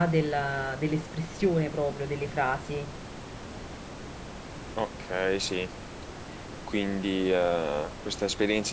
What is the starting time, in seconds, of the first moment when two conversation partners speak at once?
none

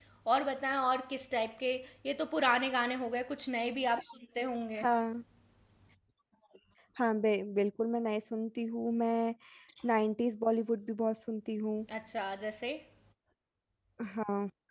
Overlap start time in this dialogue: none

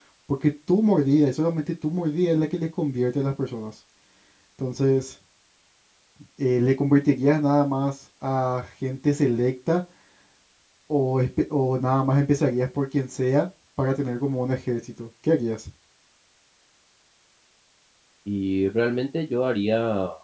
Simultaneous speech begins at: none

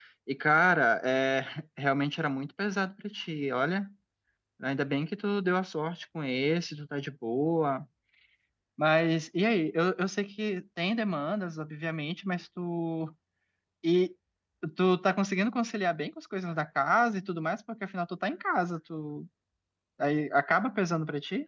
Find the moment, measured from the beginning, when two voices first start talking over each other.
none

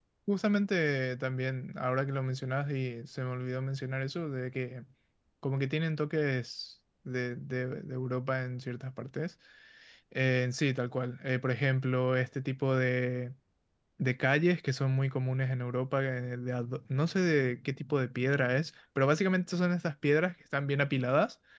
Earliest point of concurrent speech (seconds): none

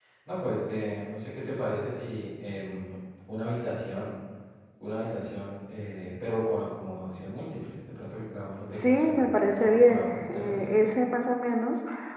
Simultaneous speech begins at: 8.8 s

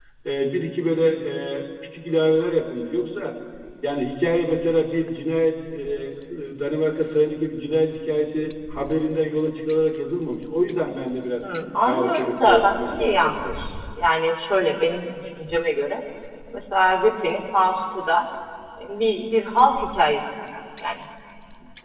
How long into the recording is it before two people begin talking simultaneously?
11.9 s

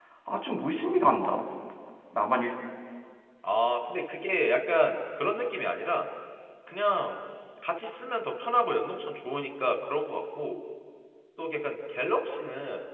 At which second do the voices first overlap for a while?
none

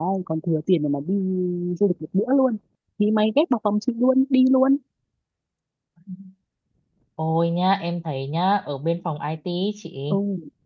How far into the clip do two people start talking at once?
none

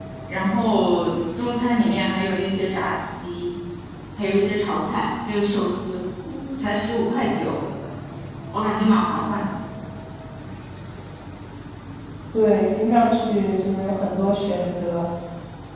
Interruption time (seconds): none

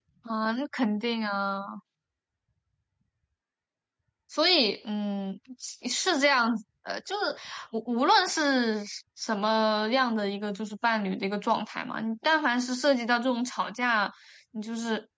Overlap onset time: none

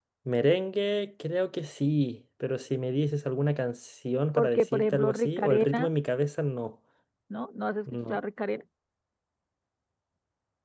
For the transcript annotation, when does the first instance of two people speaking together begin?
4.4 s

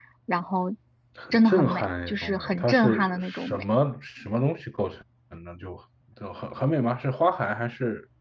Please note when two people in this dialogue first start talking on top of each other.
1.3 s

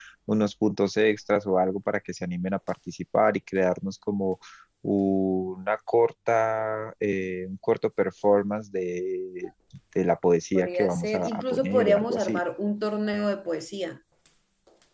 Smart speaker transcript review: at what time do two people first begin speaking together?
10.6 s

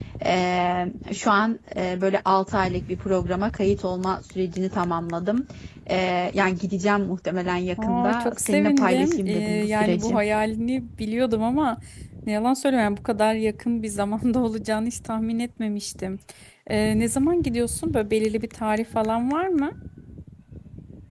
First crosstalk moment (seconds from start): 7.8 s

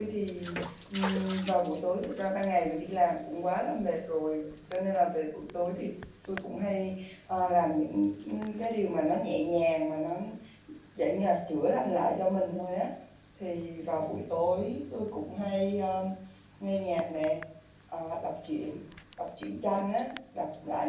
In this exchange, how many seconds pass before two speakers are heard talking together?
none

